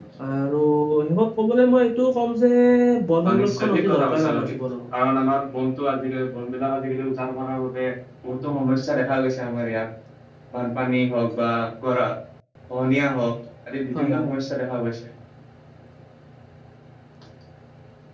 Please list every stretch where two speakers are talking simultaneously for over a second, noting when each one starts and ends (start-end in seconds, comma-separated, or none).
3.3-4.5